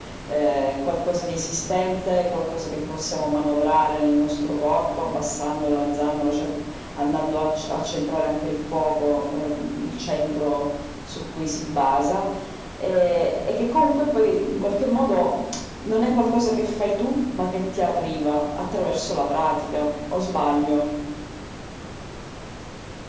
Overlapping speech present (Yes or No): No